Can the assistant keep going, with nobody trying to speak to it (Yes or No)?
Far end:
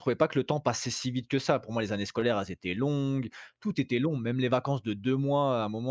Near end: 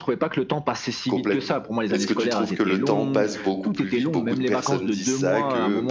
No